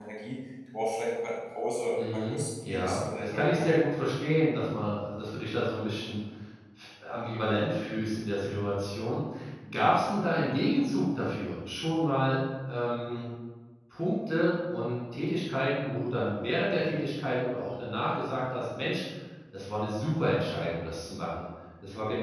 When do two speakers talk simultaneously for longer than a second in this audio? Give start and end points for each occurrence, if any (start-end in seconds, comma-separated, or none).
2.1-3.7